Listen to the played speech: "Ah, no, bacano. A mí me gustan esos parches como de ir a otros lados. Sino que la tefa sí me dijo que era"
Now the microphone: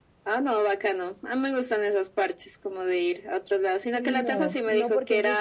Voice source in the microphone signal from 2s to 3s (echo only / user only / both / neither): echo only